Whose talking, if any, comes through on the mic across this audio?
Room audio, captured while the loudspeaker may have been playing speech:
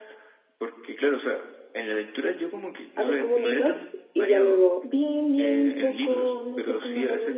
both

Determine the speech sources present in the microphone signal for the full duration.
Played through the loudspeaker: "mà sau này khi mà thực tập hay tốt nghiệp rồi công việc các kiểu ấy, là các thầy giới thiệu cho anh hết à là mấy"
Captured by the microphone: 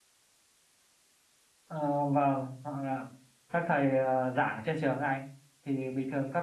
user only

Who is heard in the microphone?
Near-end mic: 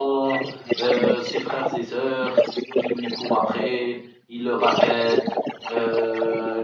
both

